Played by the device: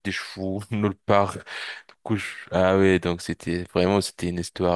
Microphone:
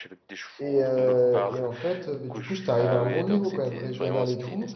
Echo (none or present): present